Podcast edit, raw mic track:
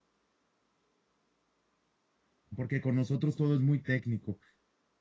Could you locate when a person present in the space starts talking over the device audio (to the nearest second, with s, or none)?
3 s